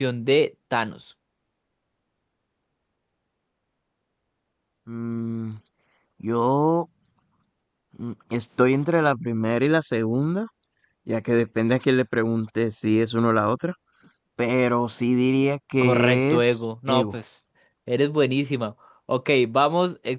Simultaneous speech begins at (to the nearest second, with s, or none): 16 s